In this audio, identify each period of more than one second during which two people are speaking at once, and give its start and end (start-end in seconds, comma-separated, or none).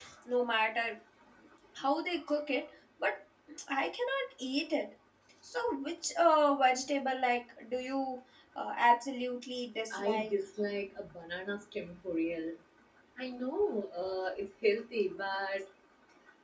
none